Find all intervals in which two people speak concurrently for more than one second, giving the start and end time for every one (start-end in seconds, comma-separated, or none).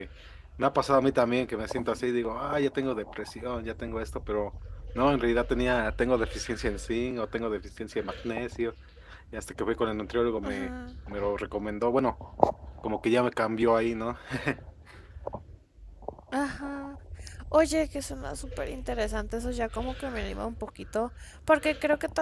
none